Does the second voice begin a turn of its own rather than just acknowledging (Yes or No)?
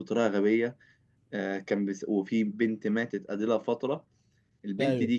No